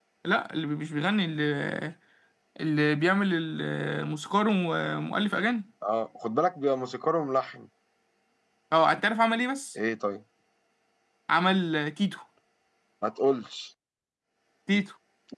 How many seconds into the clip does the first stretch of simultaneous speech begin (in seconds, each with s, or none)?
none